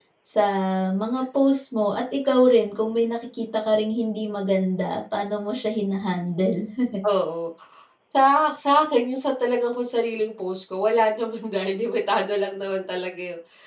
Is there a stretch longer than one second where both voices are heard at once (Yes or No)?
No